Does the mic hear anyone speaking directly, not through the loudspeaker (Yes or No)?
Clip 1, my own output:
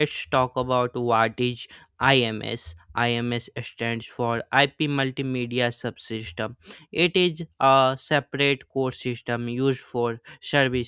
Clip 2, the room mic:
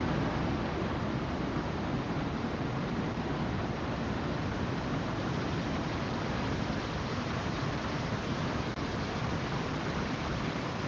No